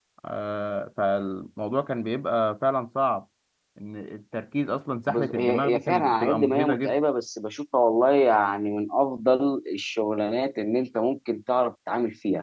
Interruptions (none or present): present